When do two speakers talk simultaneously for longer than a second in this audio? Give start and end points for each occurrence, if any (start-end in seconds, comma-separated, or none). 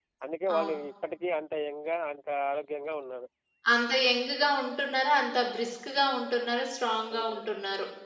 none